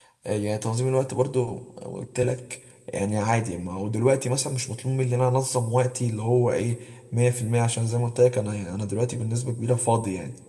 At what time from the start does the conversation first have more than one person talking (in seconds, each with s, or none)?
none